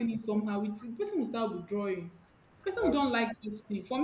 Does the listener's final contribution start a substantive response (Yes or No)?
No